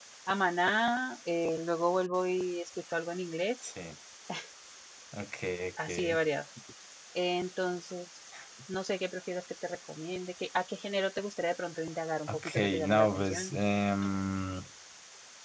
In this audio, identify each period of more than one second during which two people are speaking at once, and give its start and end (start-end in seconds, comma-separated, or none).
12.3-13.5